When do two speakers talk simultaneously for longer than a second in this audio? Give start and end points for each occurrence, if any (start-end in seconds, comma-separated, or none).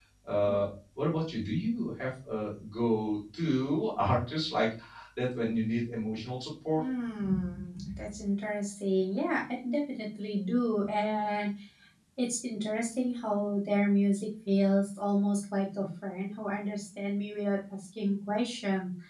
none